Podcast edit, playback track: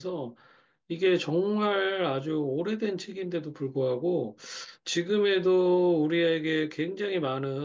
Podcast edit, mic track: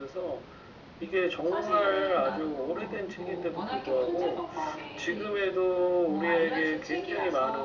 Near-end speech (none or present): present